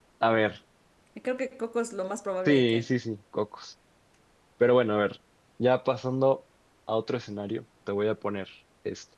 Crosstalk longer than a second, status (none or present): none